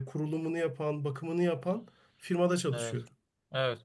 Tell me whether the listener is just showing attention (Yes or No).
No